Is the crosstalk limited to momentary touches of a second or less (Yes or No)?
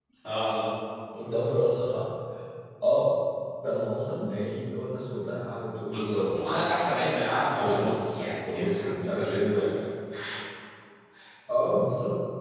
No